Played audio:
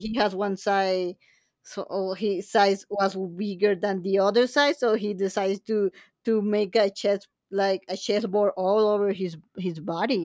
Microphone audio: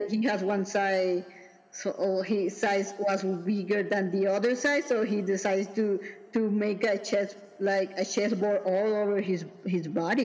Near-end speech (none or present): none